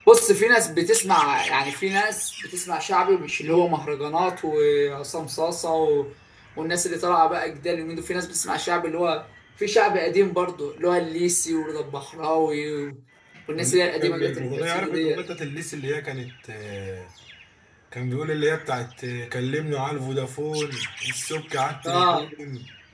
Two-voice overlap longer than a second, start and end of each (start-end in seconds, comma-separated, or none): 13.6-15.2